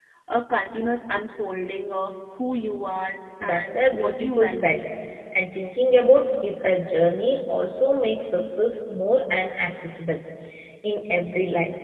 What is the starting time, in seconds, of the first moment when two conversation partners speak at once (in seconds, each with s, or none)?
3.4 s